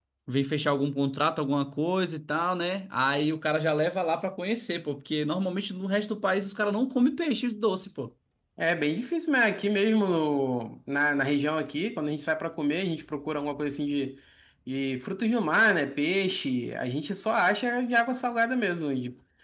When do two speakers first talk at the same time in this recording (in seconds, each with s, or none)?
none